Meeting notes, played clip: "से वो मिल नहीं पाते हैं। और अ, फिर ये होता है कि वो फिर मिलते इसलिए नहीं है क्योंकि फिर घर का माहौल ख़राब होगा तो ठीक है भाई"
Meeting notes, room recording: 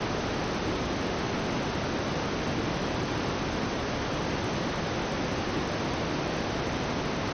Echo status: none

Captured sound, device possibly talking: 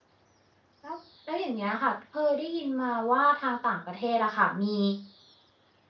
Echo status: none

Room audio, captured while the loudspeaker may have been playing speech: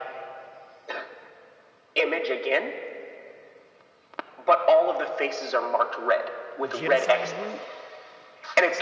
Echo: present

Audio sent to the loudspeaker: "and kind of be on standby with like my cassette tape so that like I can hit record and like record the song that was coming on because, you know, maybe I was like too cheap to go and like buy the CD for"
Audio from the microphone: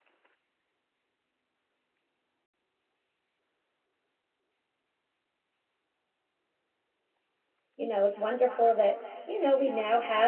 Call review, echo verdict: none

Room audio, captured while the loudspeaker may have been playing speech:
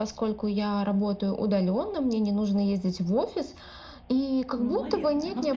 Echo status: present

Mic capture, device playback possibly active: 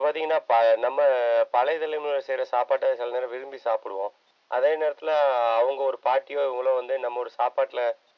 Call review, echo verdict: present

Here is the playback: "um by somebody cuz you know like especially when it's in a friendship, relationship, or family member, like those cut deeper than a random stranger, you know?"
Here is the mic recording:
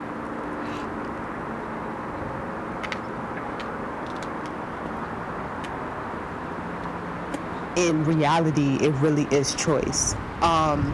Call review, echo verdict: none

